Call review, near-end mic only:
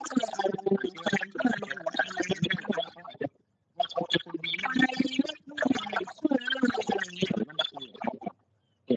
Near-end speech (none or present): none